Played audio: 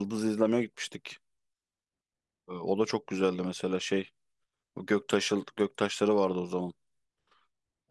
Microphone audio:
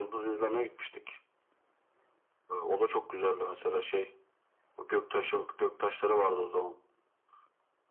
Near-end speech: none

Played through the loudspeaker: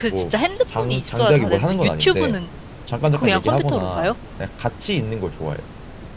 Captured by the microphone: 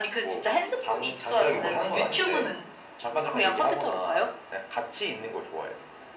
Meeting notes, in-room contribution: none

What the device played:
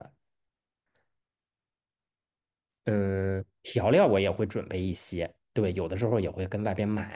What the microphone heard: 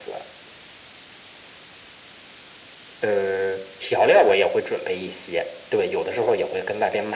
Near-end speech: none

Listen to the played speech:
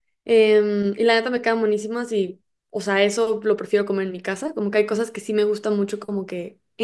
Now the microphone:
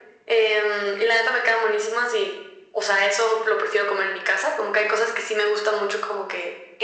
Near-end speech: none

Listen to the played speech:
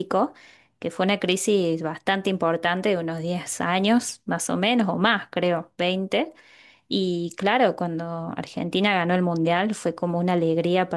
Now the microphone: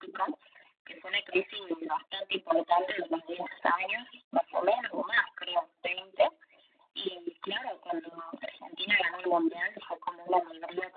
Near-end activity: none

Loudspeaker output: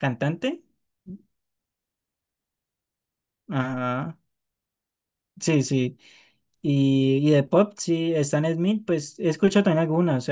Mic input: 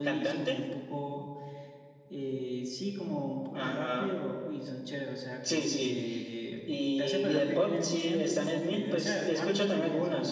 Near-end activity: present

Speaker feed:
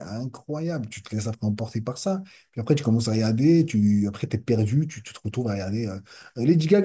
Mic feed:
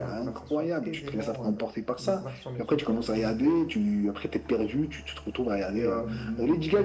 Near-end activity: present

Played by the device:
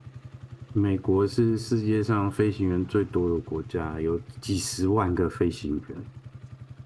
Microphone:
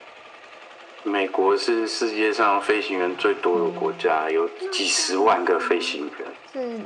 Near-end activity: present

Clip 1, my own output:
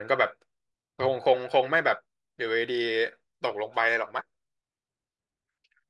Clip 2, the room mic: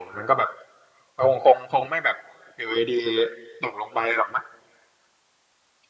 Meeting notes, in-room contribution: none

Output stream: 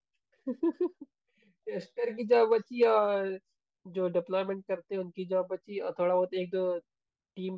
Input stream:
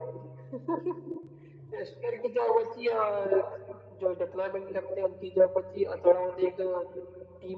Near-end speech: none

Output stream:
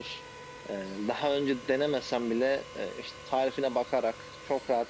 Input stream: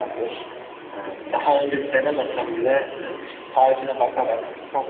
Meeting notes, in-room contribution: none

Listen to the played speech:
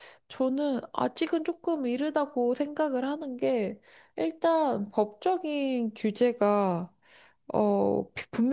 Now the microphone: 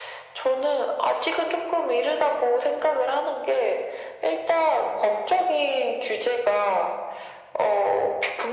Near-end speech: none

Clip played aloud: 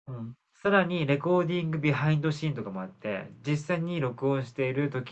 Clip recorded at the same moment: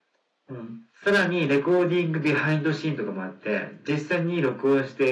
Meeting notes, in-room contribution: none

